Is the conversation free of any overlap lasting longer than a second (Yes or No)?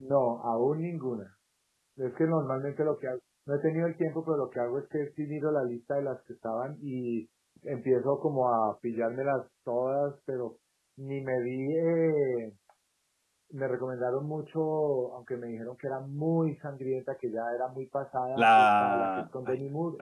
No